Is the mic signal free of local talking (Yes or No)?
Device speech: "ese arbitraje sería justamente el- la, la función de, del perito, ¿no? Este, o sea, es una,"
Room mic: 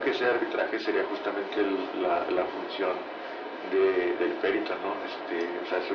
Yes